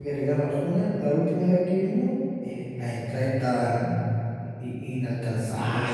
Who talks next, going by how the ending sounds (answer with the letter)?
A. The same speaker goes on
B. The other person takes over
B